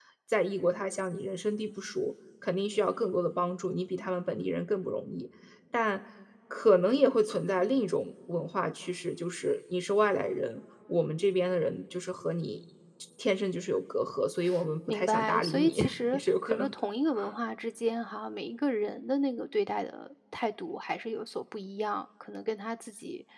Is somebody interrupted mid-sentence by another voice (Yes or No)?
Yes